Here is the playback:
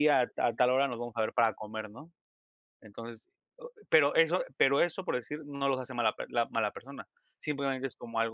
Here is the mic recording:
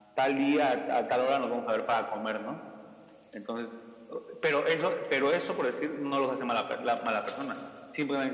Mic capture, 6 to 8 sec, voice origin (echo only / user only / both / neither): echo only